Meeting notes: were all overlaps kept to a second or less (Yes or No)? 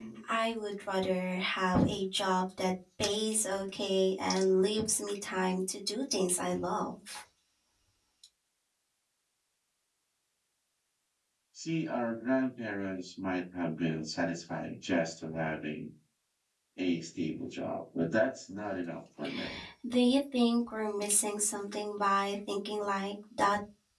Yes